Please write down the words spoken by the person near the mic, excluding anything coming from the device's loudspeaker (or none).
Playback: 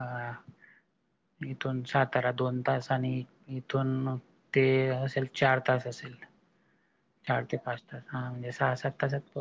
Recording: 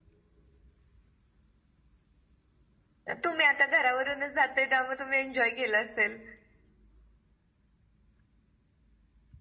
तर तुम्ही आता घरावरूनच जाताय त्यामुळे तुम्ही एन्जॉय केलं असेल.